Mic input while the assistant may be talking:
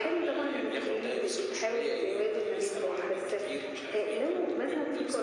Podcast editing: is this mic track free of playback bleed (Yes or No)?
No